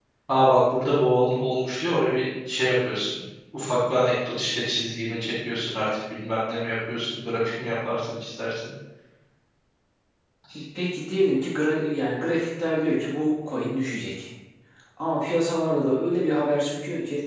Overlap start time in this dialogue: none

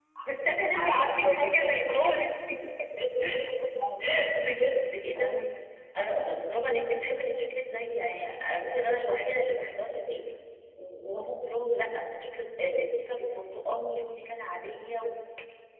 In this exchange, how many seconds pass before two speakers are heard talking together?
0.7 s

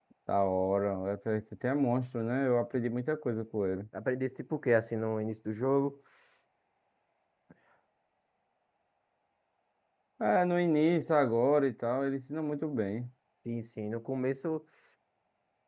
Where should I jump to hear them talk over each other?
none

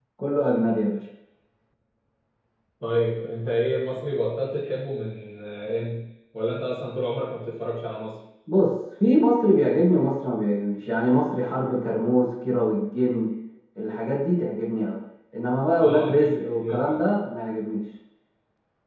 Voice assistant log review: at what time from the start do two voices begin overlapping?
15.8 s

